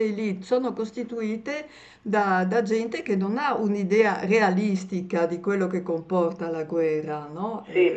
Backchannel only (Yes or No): No